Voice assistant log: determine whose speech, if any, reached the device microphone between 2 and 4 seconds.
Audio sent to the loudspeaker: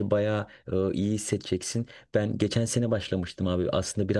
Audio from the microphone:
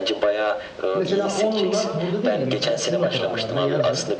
both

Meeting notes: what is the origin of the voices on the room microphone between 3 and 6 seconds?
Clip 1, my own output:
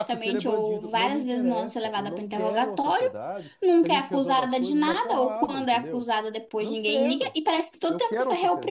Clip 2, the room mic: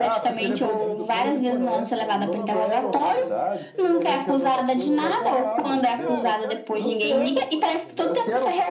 both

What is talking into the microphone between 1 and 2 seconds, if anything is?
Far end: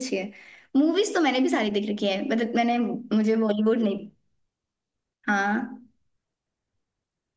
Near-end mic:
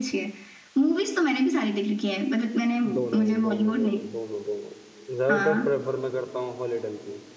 echo only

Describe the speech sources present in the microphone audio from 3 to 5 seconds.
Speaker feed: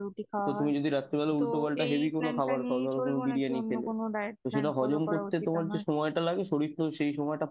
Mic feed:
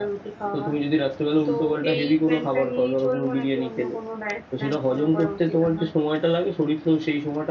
echo only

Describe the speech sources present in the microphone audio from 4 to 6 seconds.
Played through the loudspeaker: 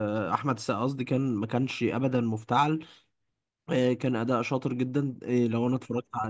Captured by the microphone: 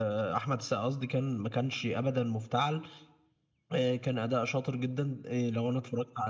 echo only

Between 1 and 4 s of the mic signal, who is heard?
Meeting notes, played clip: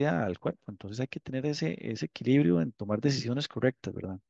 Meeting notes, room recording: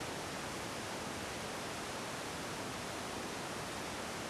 neither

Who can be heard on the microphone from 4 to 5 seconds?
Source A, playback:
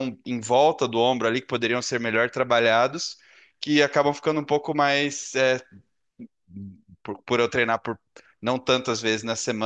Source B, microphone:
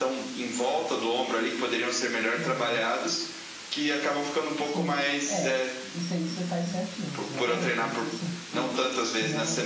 both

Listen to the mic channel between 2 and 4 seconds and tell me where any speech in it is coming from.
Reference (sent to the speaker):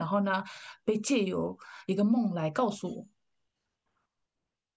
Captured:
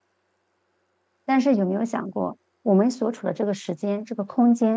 user only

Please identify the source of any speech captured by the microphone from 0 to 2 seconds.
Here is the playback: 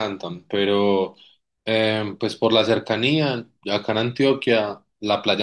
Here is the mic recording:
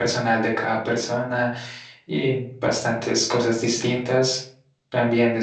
user only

